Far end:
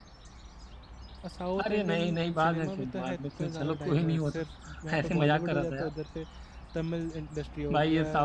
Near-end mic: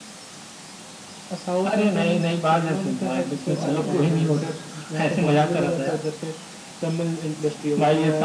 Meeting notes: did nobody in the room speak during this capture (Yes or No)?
No